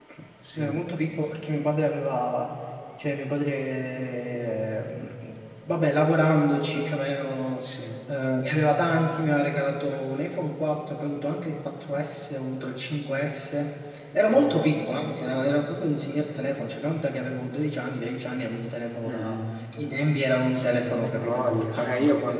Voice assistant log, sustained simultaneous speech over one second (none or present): present